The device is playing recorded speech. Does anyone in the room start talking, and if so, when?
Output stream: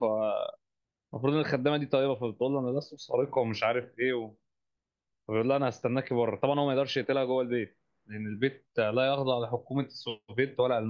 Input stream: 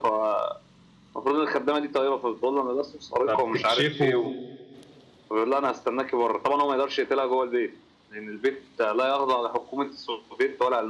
3 s

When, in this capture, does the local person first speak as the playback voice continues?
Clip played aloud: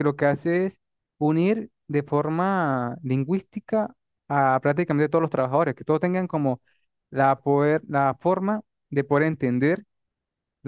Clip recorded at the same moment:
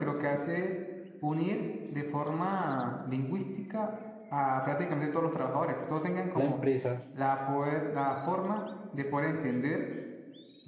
6 s

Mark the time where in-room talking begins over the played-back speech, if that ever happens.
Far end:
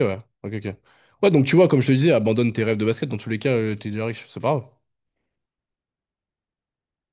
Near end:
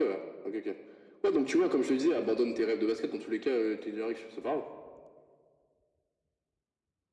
none

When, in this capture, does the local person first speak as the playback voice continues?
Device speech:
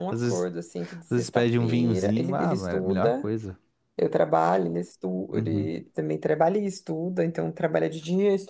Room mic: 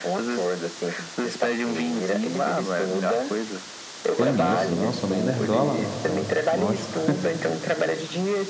4 s

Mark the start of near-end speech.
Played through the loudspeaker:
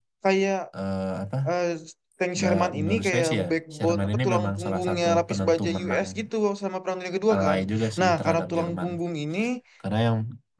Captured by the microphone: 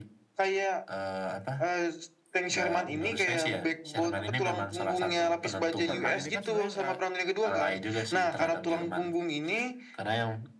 6 s

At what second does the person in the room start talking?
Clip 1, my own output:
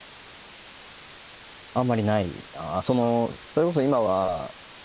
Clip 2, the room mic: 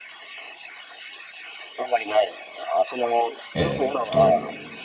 4 s

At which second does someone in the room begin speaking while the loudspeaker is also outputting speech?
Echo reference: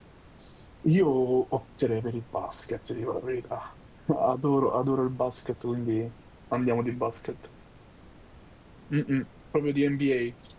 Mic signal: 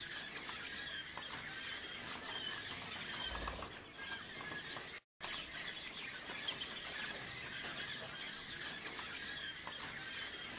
none

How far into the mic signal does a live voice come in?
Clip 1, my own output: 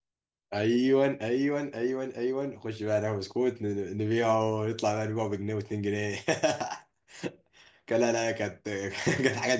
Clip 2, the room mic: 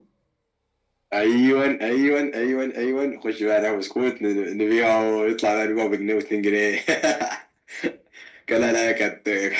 none

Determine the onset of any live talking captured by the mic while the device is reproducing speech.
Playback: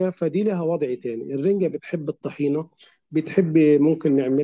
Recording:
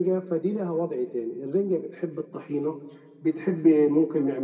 none

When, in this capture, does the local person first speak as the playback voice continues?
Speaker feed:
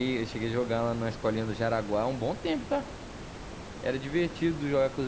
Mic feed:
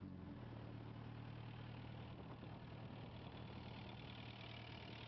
none

